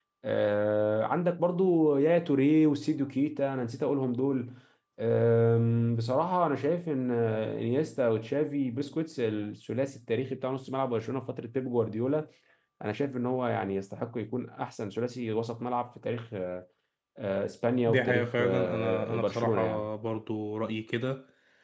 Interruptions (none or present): present